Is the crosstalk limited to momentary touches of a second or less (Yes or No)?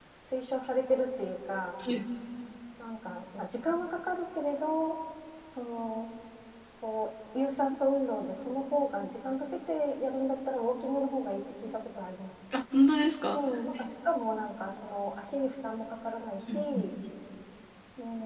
Yes